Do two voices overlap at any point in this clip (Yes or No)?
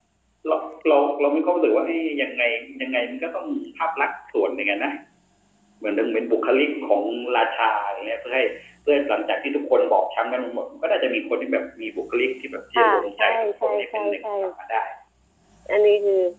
Yes